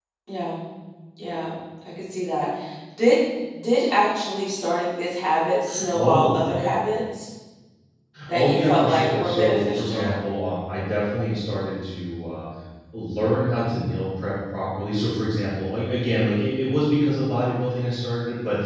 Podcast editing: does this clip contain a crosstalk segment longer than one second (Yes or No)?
Yes